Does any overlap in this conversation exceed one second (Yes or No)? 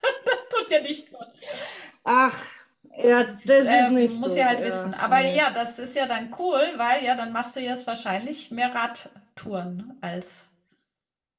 Yes